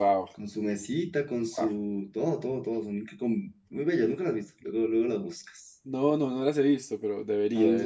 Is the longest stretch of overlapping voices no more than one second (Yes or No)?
Yes